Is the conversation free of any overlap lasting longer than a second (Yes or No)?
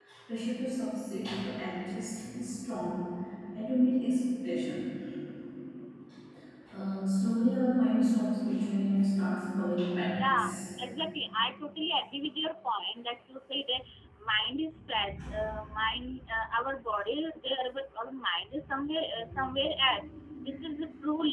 Yes